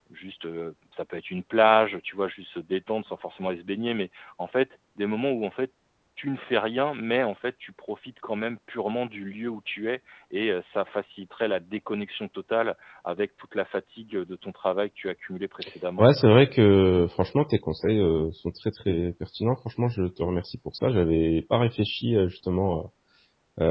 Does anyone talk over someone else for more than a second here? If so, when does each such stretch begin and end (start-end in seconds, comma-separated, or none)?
none